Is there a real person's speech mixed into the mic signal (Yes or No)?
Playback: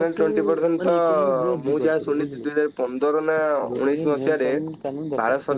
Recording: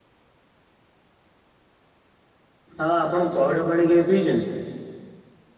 Yes